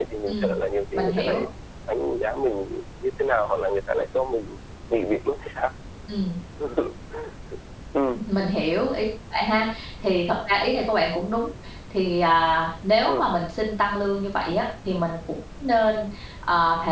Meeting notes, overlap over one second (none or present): none